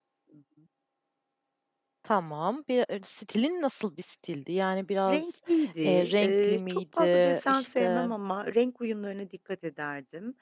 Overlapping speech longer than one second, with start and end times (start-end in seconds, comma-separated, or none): 5.8-8.1